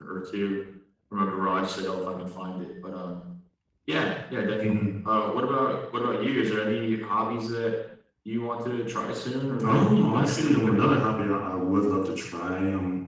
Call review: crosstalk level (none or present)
present